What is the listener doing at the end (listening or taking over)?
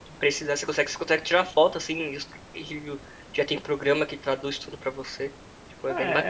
taking over